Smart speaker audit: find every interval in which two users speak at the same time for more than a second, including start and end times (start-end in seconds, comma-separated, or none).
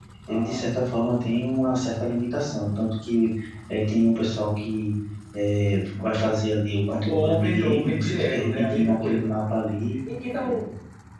7.1-9.3